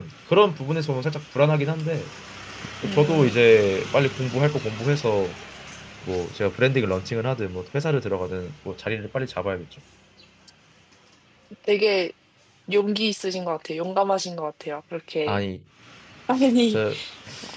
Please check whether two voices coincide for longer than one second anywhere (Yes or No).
No